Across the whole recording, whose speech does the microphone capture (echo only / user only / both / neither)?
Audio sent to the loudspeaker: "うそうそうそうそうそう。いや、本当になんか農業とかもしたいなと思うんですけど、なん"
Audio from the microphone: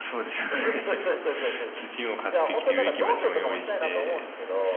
both